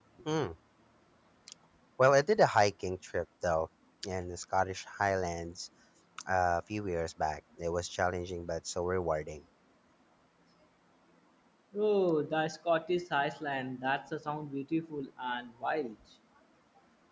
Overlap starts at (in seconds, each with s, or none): none